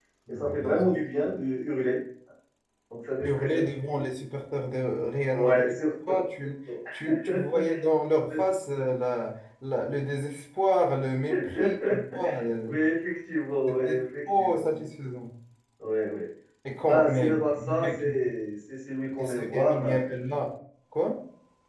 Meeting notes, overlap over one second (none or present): present